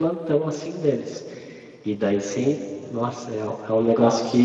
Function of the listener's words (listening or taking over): listening